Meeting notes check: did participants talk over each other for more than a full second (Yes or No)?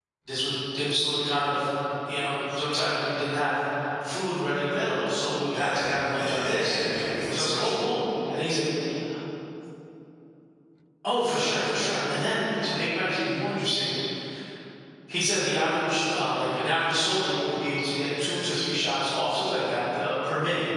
Yes